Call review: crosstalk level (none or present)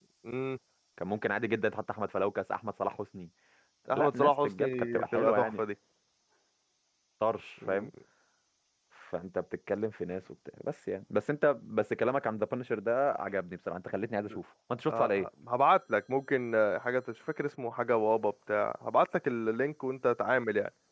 present